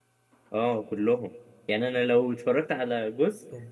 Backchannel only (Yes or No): Yes